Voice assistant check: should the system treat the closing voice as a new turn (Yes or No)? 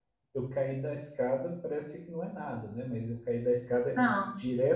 Yes